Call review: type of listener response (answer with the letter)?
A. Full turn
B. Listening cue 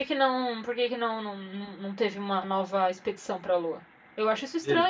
A